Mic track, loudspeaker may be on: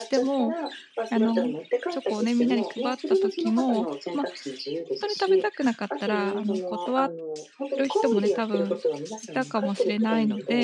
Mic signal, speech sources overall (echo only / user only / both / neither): both